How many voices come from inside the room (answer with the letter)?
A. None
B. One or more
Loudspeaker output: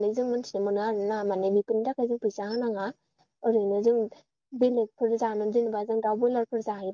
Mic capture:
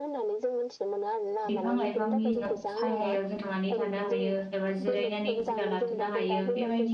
B